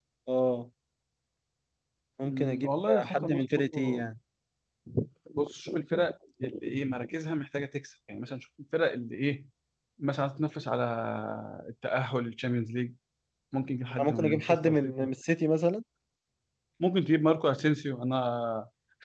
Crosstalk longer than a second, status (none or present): present